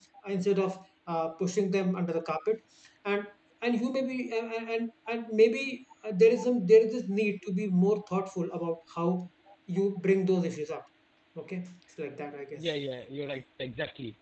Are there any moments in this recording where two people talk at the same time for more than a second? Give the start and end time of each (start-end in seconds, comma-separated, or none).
none